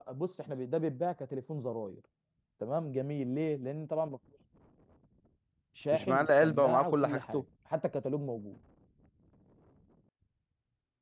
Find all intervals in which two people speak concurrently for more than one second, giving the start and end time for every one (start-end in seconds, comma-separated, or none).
5.9-7.4